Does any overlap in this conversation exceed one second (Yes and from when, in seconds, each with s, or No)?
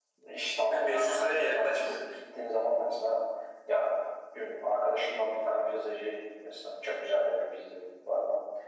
Yes, from 0.7 s